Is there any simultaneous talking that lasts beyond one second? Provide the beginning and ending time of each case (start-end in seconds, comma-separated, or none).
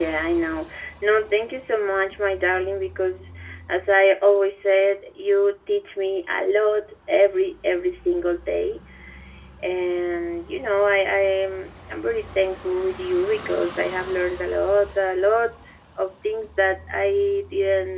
none